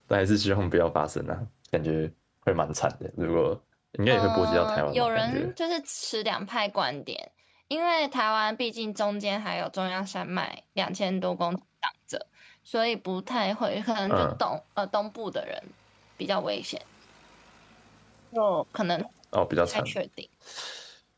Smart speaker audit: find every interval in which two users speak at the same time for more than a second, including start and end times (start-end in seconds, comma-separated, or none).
4.1-5.5